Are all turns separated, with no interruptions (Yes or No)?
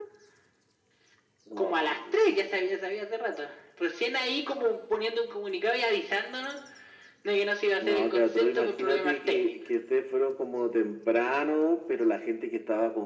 No